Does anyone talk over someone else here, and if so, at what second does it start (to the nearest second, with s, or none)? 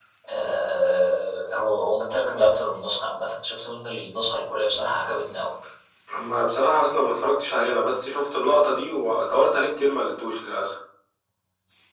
none